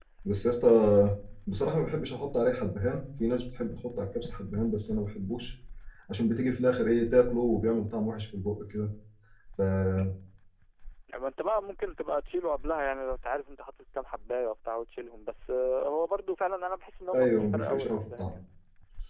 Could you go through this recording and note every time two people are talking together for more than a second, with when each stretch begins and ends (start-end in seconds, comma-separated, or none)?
17.1-18.3